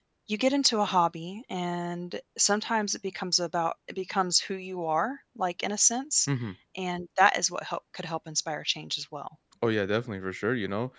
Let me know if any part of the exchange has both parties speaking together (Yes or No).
No